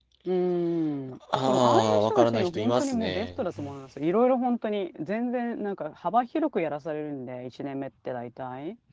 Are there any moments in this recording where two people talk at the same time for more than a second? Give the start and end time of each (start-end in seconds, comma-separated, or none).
1.5-3.4